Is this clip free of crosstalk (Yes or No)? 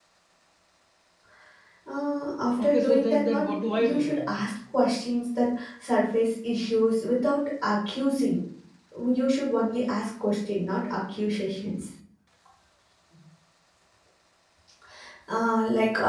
No